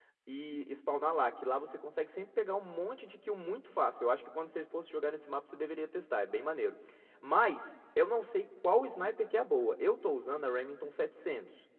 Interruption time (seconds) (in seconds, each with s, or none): none